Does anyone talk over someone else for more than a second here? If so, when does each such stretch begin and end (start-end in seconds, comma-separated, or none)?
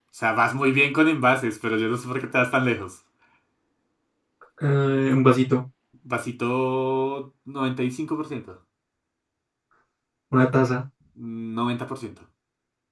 none